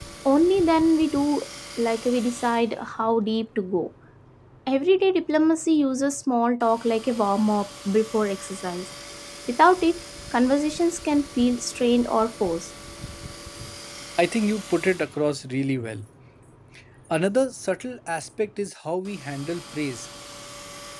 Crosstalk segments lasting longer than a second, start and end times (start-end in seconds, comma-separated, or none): none